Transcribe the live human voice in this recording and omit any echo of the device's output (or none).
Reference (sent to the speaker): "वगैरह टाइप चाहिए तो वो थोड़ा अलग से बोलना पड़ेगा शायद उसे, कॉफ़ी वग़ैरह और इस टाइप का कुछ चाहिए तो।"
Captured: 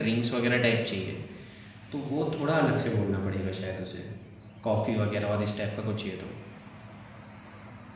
none